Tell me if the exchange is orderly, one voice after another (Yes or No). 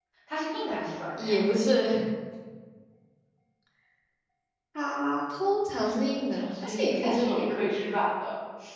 No